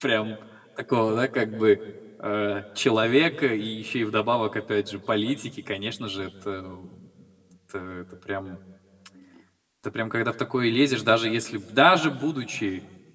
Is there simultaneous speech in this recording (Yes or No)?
No